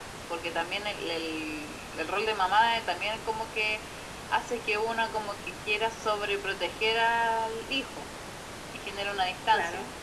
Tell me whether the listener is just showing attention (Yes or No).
Yes